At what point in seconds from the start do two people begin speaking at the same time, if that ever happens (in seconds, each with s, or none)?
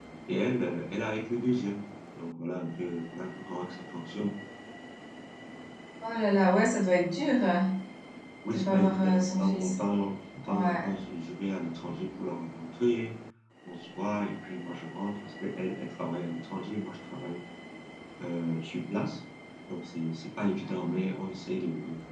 8.5 s